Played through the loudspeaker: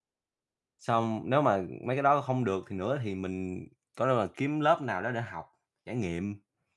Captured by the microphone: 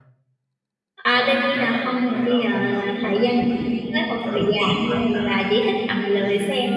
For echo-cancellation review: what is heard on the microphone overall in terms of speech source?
both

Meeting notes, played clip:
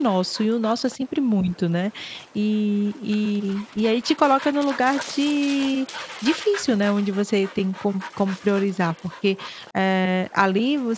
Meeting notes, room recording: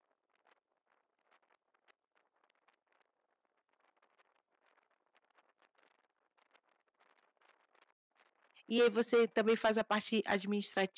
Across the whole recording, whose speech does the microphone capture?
user only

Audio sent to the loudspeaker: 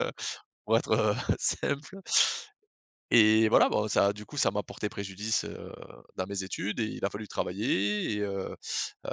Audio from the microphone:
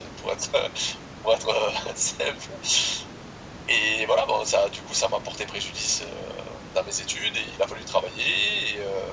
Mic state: echo only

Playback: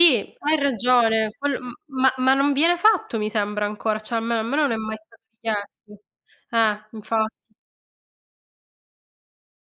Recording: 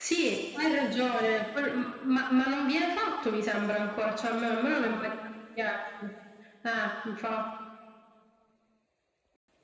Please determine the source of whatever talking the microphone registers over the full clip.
echo only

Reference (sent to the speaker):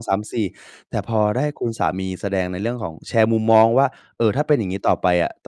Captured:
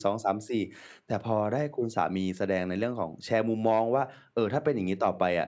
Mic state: echo only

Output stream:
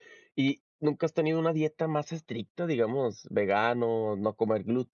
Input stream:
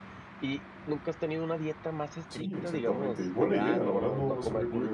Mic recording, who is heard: both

